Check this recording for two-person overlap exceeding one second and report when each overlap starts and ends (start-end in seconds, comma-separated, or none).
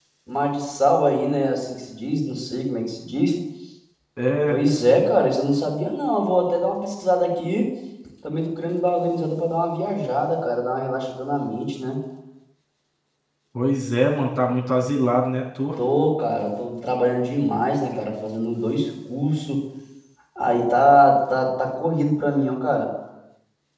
none